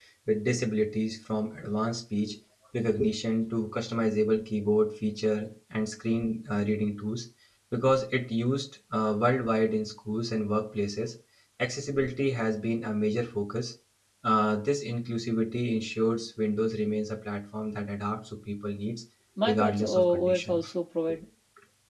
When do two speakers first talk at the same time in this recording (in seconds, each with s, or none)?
19.5 s